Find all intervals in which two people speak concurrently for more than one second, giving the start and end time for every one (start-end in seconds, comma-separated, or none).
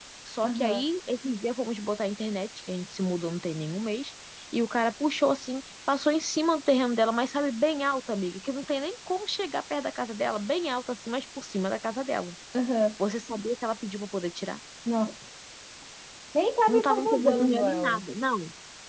16.7-18.0